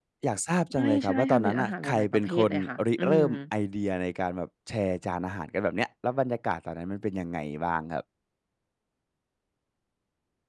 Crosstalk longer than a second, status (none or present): present